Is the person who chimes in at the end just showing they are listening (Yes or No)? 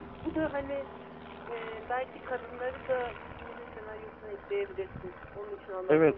No